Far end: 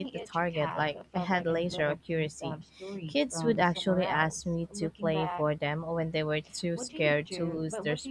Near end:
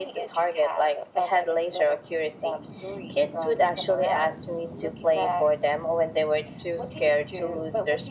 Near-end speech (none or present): none